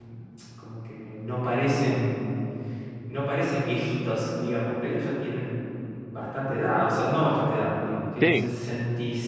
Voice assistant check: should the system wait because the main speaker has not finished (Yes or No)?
Yes